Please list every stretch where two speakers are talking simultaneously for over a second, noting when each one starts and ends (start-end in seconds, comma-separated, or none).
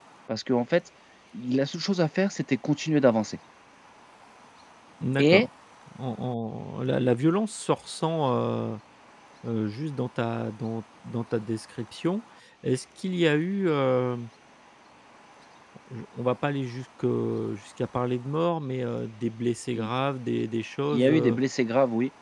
none